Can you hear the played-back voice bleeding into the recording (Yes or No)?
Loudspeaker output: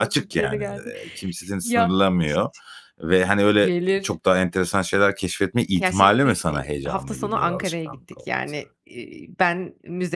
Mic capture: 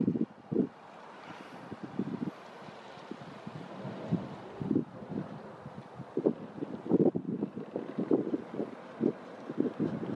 No